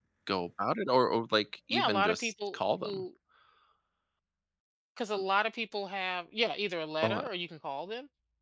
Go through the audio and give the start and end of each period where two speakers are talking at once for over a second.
1.7-3.0

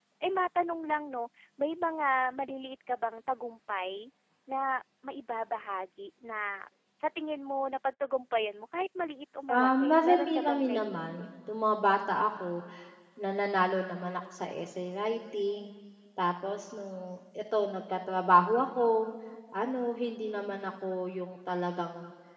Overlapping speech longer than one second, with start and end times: 9.5-11.3

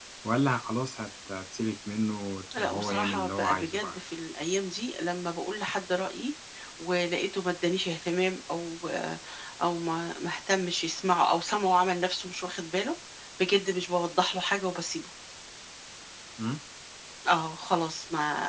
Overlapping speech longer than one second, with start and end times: 2.6-4.0

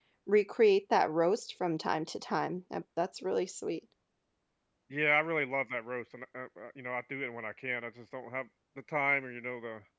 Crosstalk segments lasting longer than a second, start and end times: none

